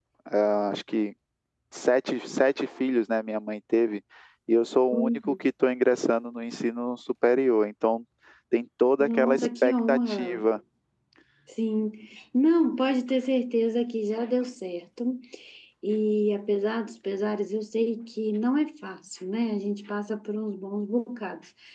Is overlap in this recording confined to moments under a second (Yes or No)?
No